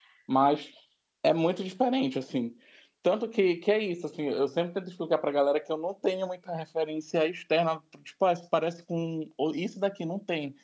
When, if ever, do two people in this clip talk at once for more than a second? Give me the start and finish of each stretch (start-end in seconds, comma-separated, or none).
none